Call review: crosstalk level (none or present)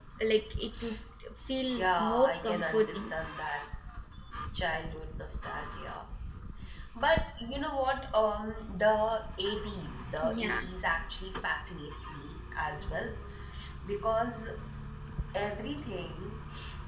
present